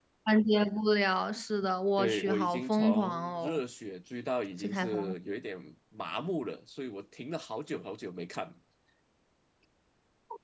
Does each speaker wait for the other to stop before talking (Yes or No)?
No